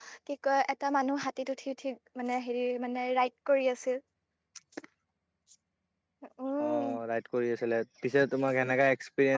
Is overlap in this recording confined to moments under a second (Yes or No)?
Yes